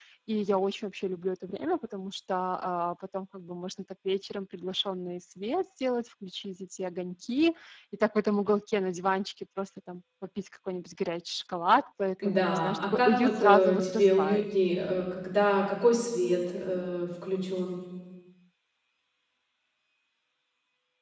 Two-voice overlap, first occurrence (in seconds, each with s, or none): 12.2 s